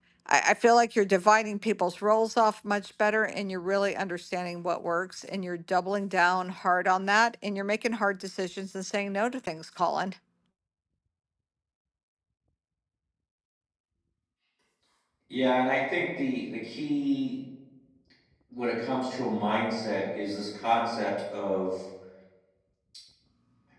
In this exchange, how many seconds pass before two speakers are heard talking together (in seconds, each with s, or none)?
none